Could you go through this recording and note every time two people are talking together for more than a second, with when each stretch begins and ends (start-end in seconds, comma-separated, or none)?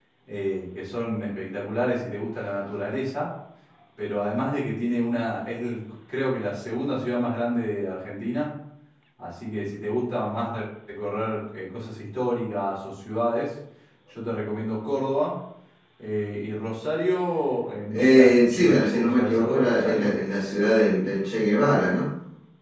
17.9-20.1